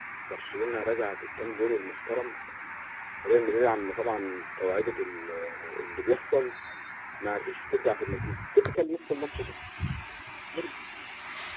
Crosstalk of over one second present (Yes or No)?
No